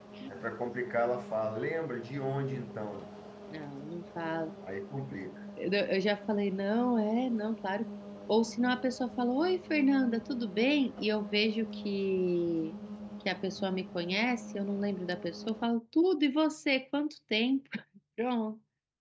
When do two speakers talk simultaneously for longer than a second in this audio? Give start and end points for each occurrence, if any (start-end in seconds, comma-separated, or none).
none